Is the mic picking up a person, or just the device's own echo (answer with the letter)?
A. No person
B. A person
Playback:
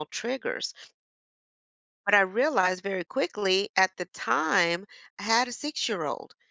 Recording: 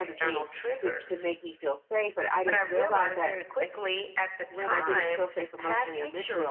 B